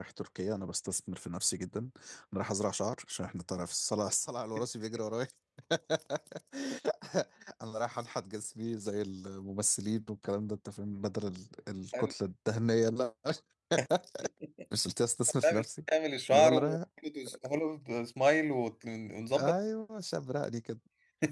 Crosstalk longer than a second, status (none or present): none